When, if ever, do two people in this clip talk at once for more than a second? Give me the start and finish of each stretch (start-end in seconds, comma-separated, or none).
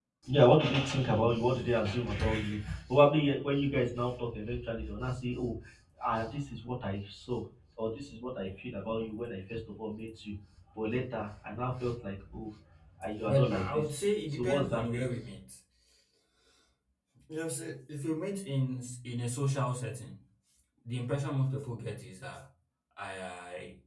13.2-15.0